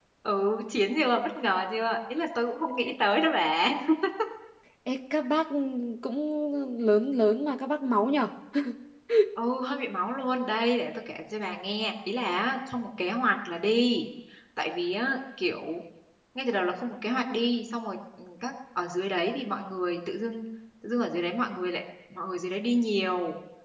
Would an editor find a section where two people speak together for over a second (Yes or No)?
No